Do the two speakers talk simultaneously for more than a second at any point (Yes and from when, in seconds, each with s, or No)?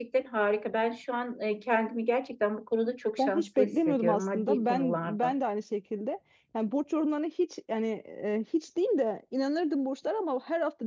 Yes, from 3.2 s